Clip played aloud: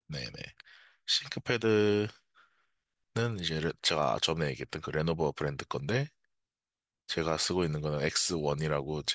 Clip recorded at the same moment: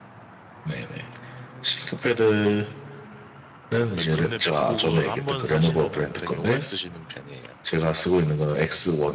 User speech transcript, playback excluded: 어, 맥- 근데 맥북은 한 번 사시면은 되게 오래 쓰시는 편이에요.

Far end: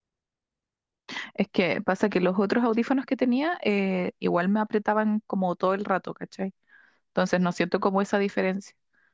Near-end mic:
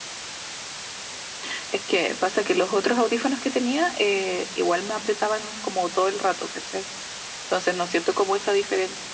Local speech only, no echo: none

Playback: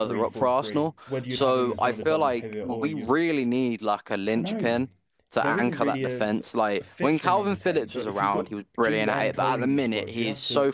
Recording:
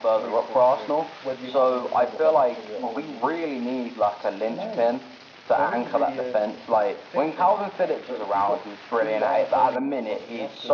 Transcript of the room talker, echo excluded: none

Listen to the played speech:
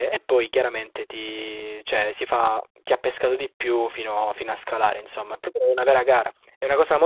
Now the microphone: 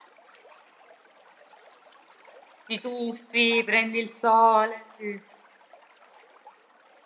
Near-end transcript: ti tuffi, prendi il sole, sì.

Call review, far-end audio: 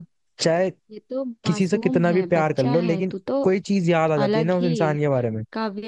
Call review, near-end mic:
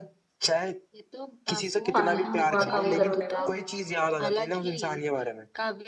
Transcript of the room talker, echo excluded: फायदा हुआ काम करने का

